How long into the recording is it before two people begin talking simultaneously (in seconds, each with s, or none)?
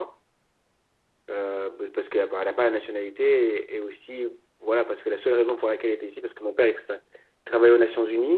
none